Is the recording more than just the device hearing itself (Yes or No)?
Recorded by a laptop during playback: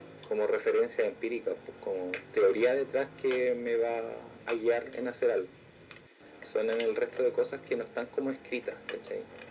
No